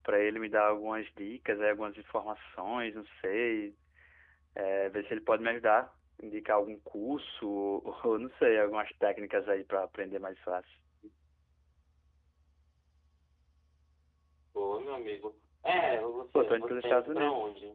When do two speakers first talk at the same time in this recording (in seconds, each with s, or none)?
16.3 s